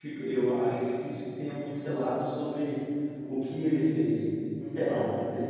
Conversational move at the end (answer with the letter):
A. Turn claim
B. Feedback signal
A